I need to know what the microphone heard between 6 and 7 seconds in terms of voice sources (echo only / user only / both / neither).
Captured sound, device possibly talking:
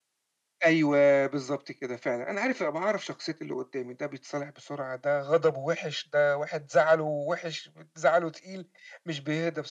echo only